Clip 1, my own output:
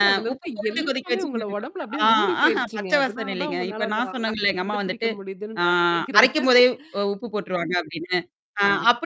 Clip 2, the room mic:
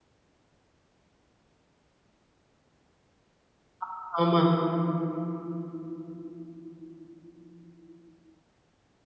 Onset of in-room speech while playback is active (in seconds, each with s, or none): 3.8 s